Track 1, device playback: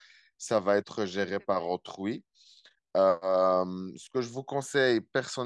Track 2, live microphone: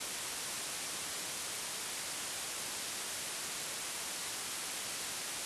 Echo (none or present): none